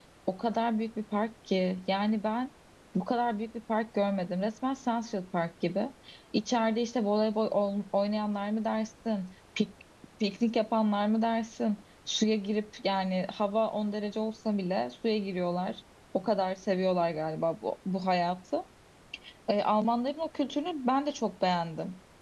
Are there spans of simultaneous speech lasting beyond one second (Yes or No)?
No